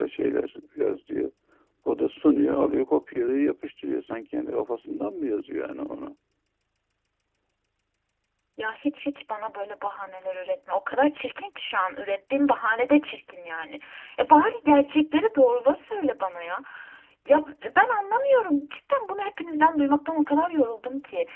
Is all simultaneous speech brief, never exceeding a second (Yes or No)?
Yes